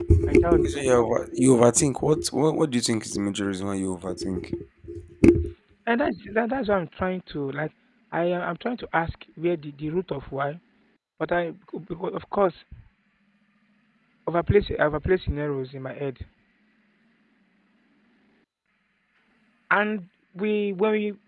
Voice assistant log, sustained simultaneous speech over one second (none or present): none